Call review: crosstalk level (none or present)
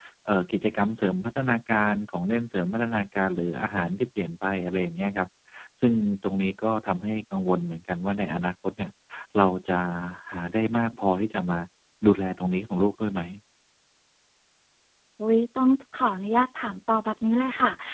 none